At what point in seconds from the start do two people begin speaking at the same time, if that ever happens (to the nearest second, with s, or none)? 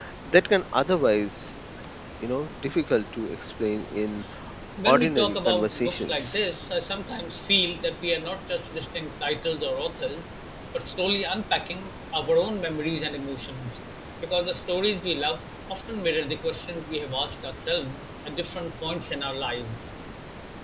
5 s